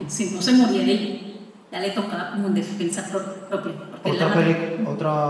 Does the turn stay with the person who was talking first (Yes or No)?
No